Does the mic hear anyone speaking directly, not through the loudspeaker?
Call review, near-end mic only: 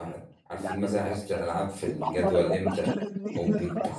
Yes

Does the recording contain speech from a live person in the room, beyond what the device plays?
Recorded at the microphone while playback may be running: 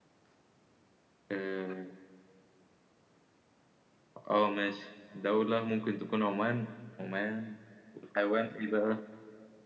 Yes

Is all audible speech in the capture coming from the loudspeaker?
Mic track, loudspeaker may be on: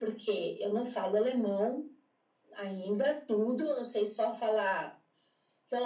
Yes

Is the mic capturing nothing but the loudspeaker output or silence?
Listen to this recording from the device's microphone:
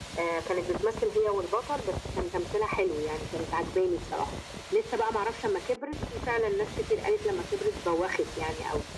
Yes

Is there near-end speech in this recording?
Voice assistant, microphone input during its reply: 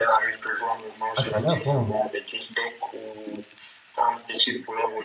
Yes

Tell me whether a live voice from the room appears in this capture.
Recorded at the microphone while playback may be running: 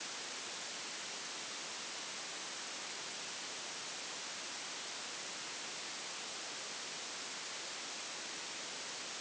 No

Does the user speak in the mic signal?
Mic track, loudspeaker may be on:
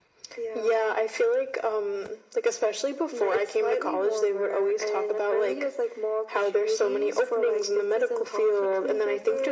No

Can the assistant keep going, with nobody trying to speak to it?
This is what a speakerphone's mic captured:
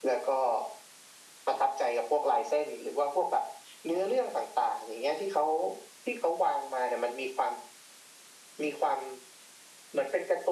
Yes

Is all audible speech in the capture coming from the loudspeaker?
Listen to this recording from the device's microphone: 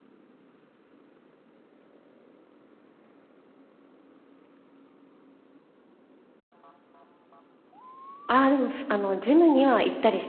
No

